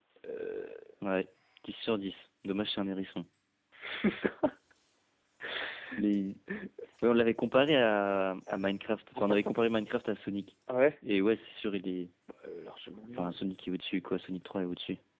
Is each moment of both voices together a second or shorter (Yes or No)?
Yes